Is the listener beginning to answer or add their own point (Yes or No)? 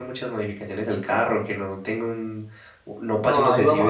Yes